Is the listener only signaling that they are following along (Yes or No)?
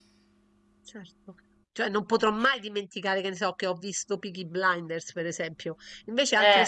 Yes